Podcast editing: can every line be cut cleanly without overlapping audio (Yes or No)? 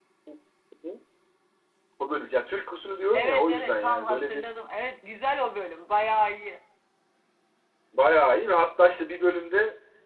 No